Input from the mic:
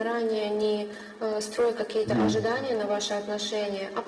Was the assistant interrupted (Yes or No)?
Yes